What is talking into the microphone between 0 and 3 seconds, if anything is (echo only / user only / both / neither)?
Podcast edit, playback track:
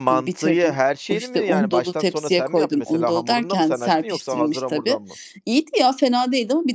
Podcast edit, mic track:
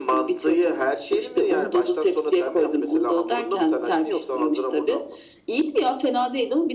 echo only